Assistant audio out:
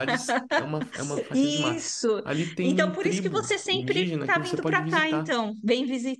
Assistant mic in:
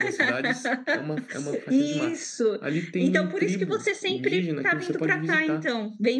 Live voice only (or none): none